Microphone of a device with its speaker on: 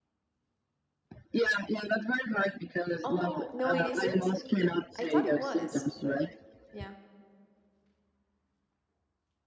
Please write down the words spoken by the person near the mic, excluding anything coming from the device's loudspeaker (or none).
Oh no, it isn't. I thought it was, but yeah.